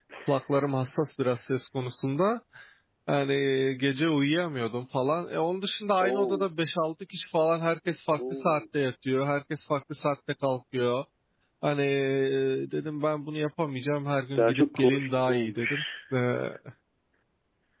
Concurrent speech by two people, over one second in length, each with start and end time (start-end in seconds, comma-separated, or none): 14.4-15.8